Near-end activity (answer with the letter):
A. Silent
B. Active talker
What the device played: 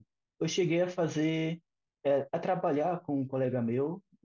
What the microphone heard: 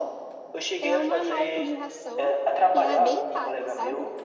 B